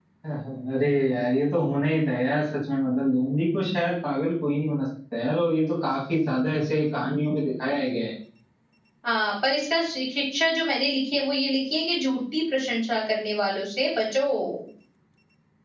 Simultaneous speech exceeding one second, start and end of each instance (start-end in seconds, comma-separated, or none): none